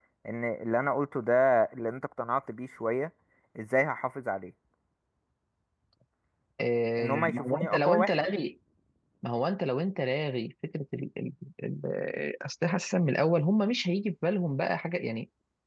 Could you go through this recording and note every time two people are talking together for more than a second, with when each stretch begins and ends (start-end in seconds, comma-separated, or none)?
7.0-8.3